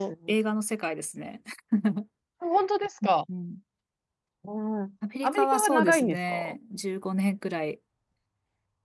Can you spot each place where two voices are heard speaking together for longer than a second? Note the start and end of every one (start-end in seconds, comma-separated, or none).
5.2-6.6